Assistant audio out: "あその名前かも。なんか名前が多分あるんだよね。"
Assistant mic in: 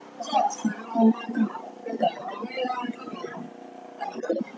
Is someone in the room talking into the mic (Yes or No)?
No